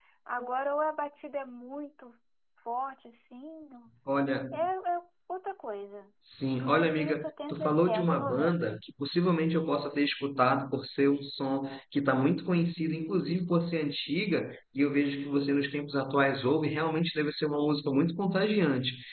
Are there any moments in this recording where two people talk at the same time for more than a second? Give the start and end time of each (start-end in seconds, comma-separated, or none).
6.6-8.8